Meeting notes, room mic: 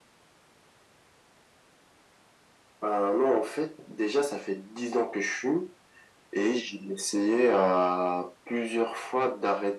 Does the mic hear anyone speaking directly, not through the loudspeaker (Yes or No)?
No